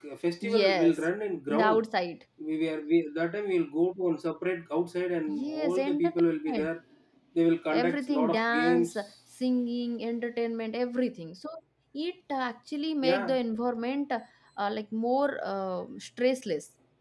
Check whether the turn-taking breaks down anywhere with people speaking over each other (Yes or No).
Yes